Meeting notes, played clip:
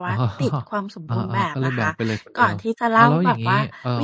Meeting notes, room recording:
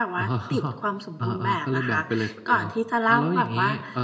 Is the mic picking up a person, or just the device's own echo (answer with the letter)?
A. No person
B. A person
A